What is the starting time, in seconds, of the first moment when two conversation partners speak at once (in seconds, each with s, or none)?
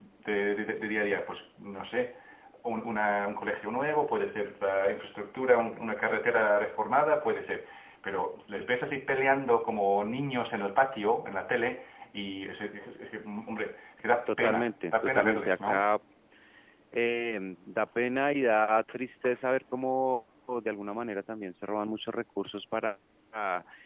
14.3 s